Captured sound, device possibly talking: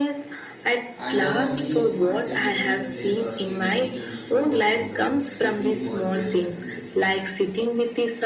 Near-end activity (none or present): present